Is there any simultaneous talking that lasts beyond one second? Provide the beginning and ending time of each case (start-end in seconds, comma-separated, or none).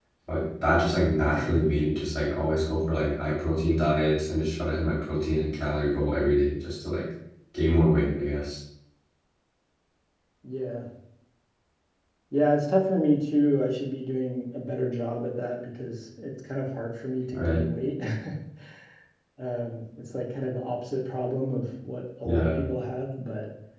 none